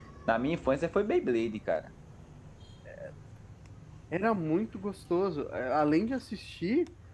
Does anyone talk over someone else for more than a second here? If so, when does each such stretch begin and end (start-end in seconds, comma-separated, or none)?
none